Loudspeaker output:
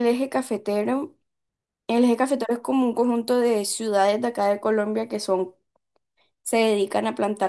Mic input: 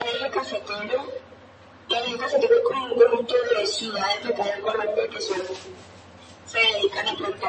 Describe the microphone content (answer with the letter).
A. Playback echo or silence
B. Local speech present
A